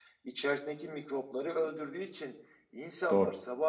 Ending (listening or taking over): listening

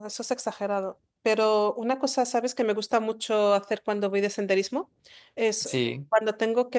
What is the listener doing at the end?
listening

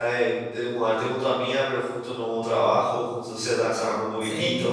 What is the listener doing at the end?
taking over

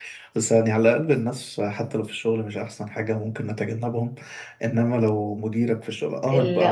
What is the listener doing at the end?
listening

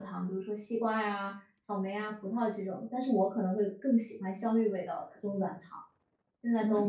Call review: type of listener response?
taking over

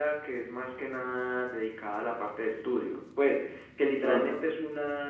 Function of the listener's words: listening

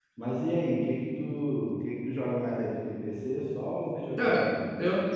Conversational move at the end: taking over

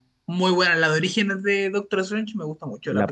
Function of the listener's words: taking over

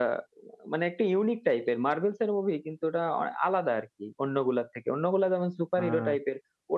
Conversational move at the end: listening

